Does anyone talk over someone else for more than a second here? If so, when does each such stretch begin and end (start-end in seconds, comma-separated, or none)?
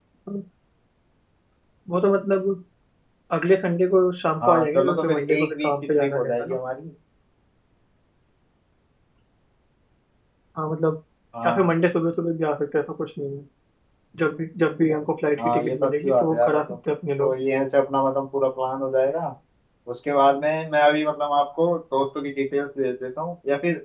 4.4-6.6, 15.4-16.8